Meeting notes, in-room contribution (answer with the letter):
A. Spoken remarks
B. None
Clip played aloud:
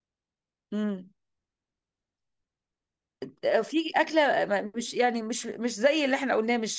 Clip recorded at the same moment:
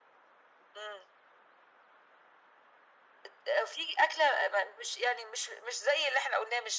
B